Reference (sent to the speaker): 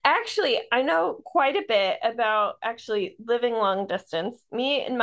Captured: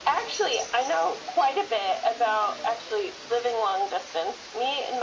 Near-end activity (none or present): none